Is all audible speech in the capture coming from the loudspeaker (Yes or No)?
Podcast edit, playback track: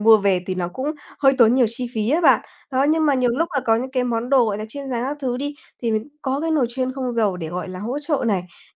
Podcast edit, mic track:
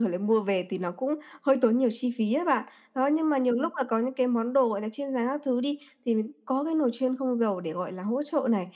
Yes